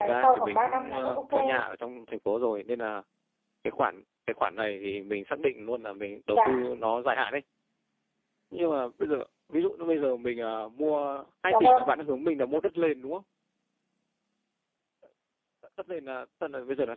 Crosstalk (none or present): present